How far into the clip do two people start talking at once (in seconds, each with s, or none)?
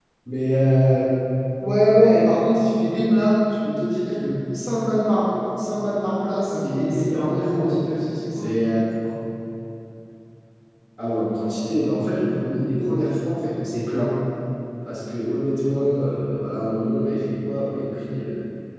6.5 s